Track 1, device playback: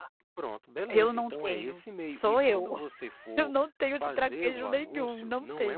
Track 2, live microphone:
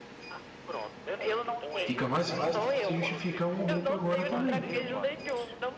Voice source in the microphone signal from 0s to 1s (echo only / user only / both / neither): echo only